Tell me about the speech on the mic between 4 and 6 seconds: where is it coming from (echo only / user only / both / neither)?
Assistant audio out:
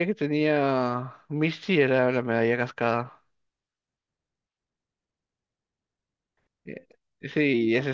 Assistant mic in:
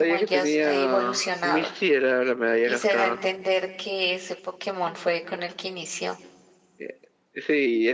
user only